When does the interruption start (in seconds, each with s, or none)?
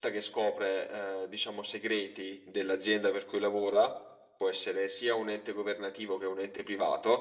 none